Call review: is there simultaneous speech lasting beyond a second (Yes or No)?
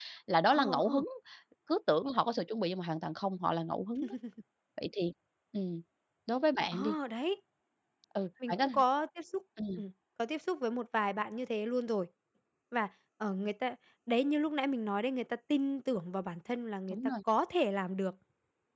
No